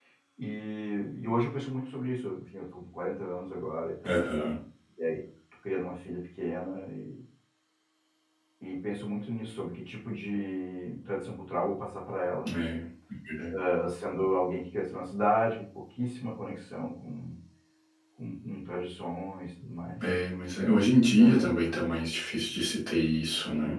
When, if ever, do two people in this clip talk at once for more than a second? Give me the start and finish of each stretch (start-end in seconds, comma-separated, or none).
none